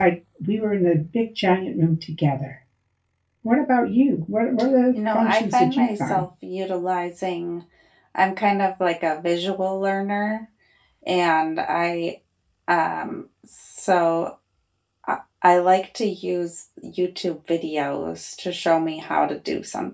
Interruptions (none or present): present